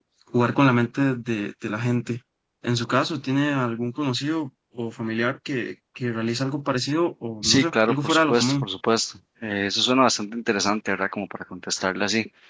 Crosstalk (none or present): present